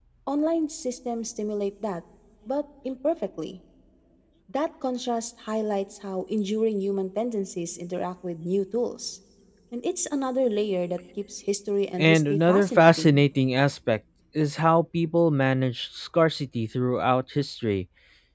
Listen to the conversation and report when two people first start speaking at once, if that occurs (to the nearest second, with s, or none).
12 s